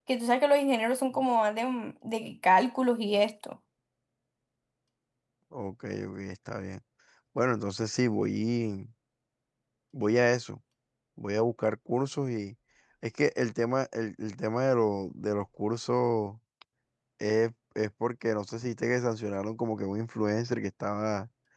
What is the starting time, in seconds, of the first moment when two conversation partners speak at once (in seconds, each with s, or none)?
none